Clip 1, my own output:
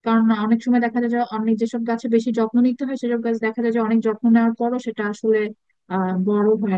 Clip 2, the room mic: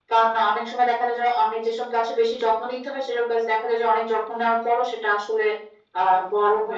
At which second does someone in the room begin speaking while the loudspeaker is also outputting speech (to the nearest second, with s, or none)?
none